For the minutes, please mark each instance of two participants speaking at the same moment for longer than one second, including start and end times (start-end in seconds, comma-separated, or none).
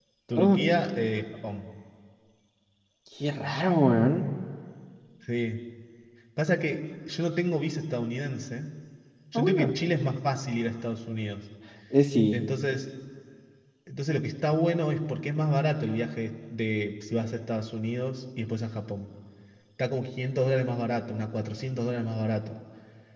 none